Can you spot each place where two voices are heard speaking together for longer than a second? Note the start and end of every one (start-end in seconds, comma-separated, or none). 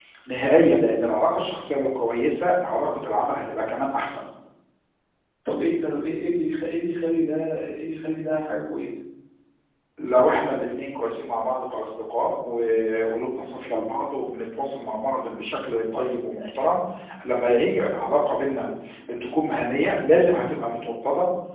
none